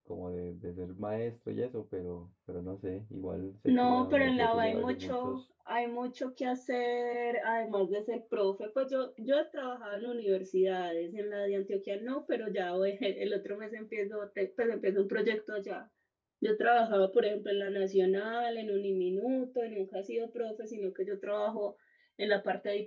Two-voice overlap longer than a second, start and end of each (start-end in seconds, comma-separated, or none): 3.7-5.4